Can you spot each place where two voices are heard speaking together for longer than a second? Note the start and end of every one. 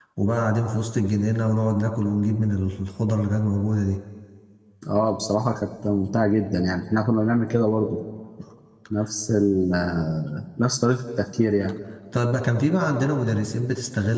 none

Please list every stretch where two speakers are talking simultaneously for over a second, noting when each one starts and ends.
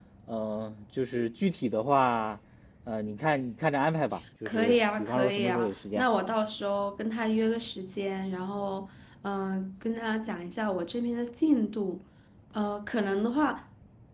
4.5-6.0

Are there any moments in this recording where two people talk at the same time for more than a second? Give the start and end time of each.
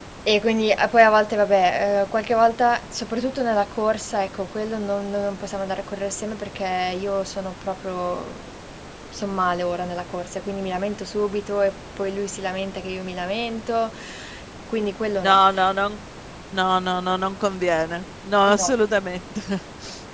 none

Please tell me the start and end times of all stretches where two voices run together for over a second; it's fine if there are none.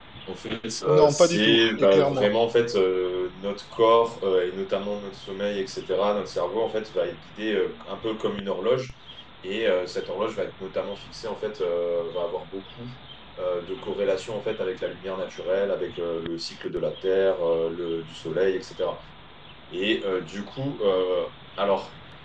0.9-2.3

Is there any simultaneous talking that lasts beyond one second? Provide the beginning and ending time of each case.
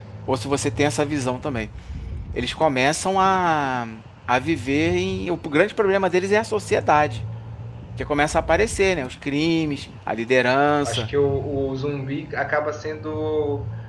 none

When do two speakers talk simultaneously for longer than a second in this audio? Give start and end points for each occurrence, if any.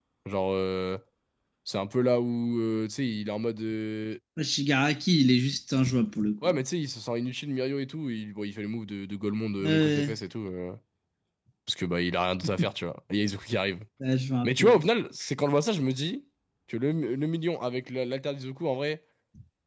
none

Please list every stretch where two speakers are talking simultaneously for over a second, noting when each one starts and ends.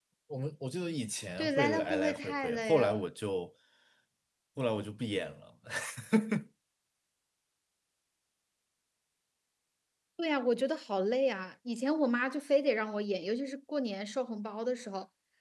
1.4-3.1

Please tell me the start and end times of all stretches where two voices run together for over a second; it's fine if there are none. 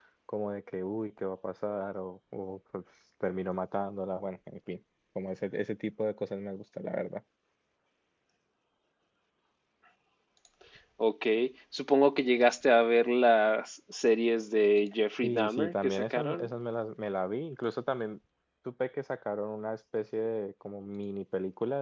15.2-16.5

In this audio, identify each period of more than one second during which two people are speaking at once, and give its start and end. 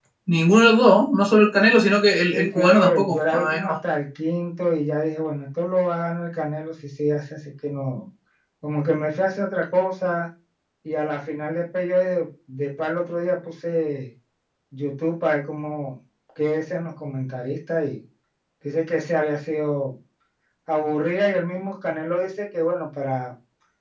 2.3-3.7

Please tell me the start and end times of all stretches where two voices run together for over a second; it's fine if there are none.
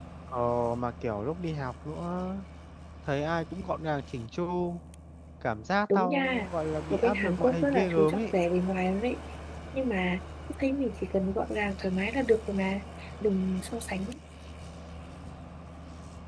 6.9-8.2

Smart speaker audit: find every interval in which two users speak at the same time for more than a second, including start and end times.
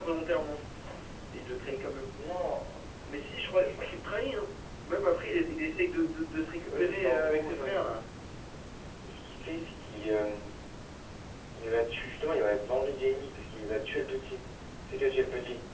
6.6-7.9

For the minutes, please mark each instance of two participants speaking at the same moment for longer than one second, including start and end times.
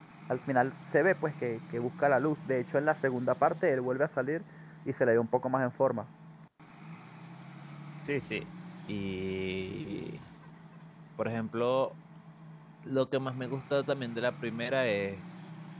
none

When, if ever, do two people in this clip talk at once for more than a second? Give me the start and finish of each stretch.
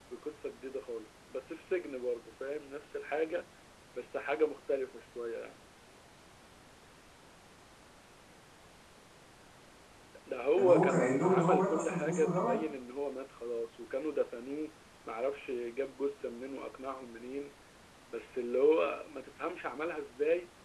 10.6-12.6

